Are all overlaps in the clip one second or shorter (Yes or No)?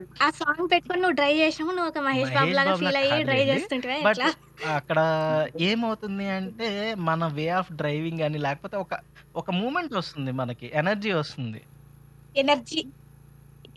No